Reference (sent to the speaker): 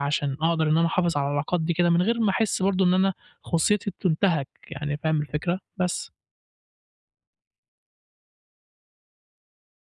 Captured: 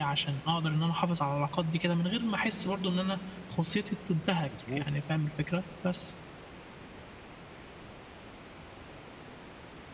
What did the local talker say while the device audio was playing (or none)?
مضبوط،